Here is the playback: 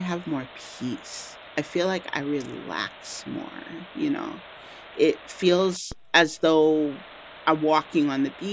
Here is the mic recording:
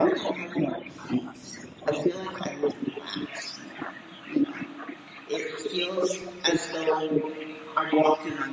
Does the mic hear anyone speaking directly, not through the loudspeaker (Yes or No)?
No